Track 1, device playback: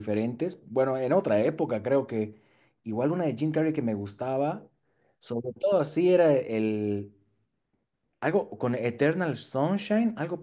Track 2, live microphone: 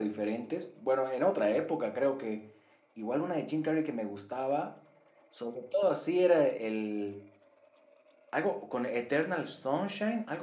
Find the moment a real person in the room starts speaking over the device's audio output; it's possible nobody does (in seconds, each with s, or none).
none